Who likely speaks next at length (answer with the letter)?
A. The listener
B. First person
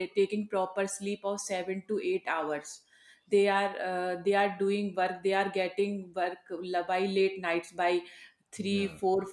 B